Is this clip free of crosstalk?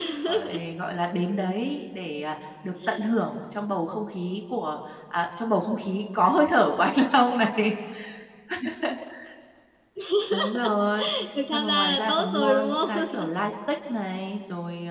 No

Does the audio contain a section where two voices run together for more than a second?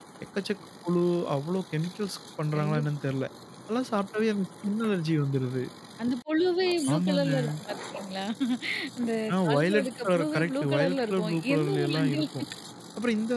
Yes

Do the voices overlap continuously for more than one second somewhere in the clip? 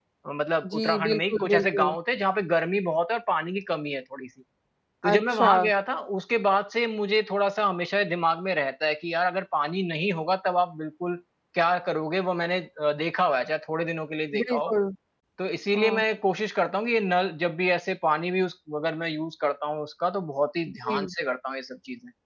Yes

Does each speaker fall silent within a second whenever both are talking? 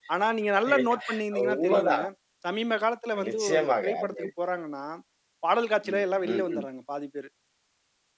No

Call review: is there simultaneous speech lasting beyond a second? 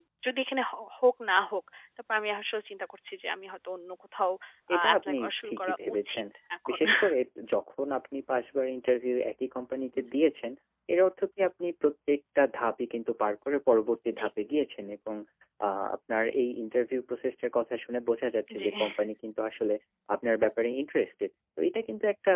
Yes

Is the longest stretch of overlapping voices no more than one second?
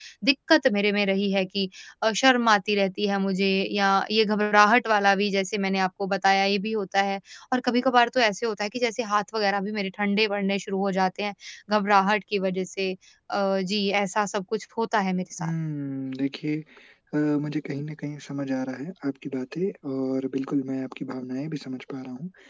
Yes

